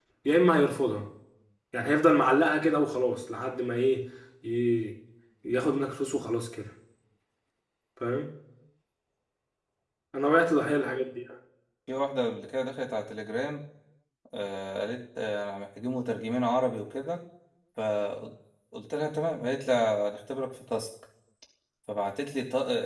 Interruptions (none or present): none